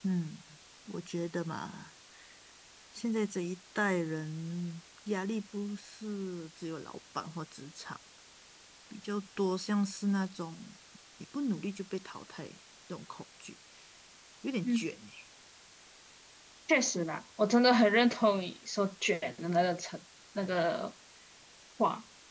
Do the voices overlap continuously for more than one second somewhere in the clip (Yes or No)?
No